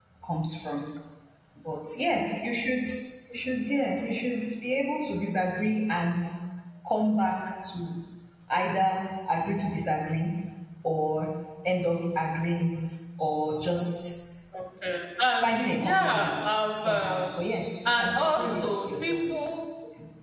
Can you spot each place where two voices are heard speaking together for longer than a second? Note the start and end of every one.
15.4-17.2, 18.0-19.6

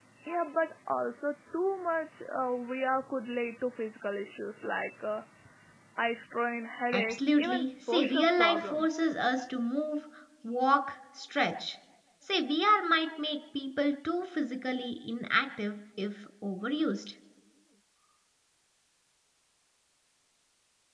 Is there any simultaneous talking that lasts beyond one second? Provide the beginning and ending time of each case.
6.9-9.0

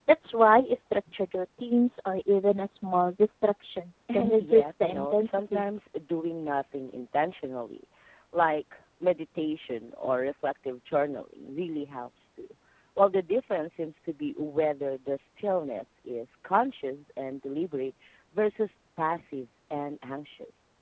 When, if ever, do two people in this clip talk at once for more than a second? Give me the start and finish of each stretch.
4.1-5.6

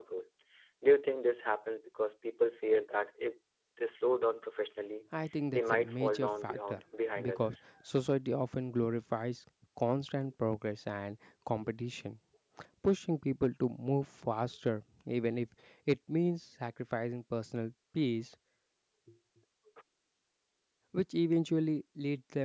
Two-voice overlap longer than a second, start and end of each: 5.5-6.8

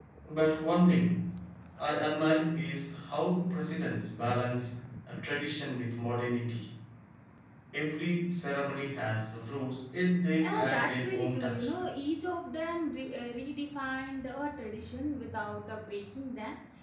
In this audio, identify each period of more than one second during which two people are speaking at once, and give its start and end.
10.4-11.7

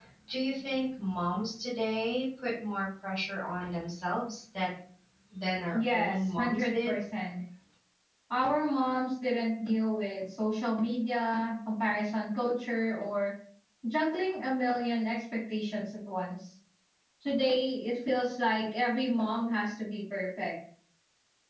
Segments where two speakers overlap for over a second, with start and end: 5.7-7.0

